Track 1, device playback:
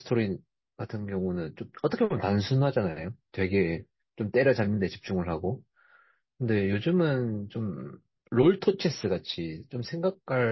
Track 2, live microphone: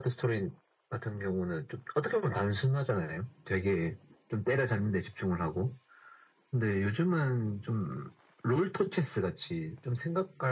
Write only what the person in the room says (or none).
none